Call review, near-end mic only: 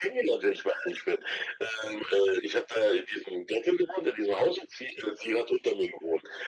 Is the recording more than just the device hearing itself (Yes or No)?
No